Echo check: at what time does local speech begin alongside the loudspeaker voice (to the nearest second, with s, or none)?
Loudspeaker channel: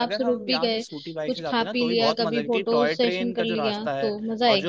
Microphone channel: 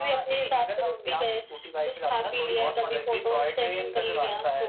none